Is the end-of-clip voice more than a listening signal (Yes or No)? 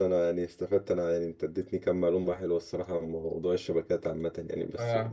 No